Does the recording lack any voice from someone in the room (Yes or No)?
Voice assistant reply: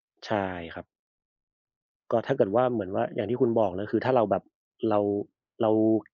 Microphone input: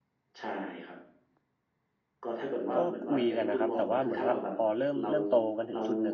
No